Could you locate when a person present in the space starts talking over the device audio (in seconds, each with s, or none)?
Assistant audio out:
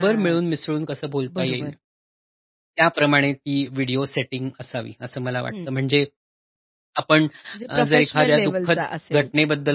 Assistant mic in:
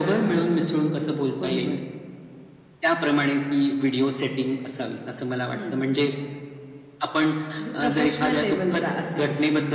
none